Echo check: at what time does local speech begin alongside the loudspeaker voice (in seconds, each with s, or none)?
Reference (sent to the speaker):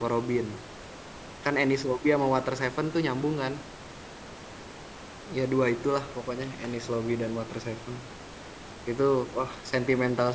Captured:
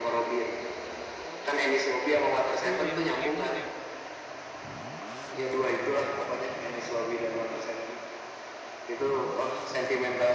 2.6 s